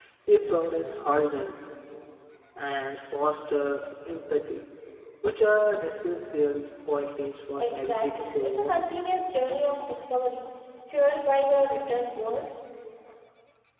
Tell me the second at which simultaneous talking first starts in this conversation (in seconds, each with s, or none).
7.6 s